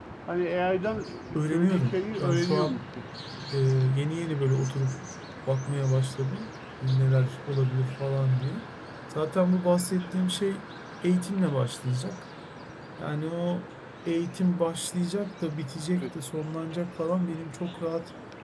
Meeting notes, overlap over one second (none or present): present